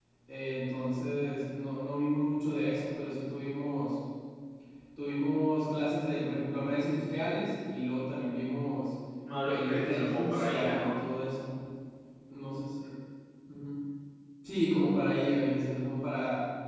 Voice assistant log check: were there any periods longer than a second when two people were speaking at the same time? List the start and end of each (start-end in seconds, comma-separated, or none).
9.4-10.9